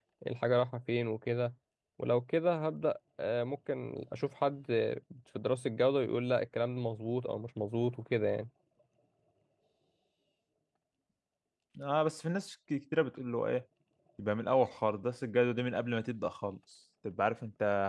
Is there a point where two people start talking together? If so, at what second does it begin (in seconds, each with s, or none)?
none